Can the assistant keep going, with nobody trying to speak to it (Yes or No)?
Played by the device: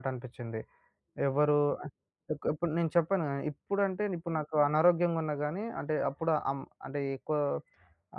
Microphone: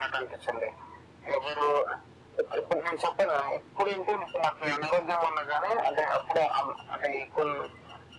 Yes